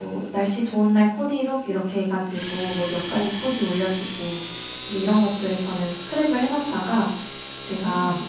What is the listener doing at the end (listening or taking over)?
listening